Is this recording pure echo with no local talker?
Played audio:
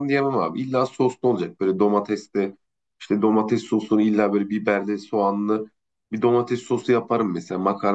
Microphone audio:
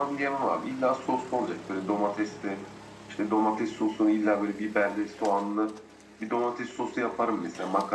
Yes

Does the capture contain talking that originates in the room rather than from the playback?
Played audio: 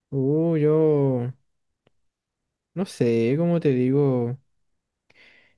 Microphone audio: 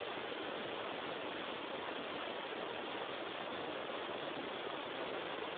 No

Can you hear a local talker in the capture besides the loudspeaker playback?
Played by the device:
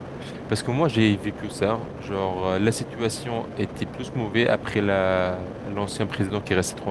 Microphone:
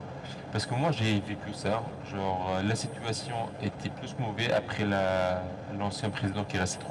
No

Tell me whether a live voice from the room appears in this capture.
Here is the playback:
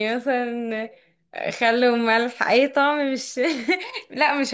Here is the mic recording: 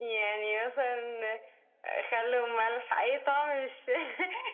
No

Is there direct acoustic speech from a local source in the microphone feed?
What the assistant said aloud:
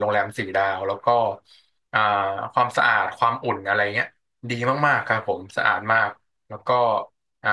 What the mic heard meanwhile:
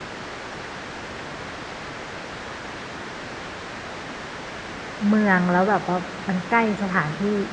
Yes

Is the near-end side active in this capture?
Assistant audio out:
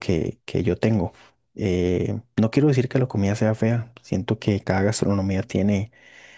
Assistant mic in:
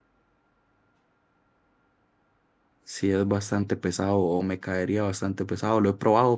Yes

